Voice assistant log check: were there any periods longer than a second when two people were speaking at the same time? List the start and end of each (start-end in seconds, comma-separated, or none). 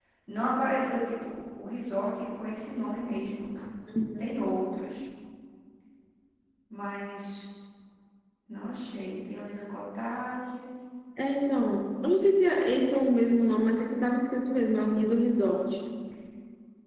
none